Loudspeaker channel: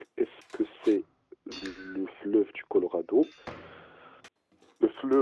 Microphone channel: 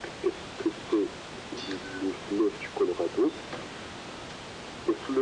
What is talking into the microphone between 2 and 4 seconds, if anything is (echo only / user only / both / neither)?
echo only